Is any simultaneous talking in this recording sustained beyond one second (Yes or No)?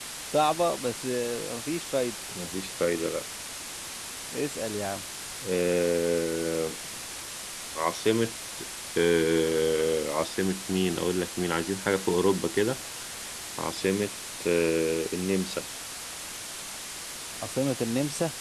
No